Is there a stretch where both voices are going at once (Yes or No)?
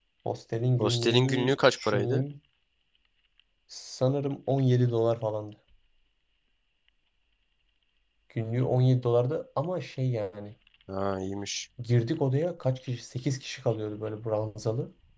Yes